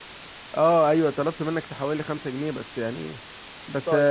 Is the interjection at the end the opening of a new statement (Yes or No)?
No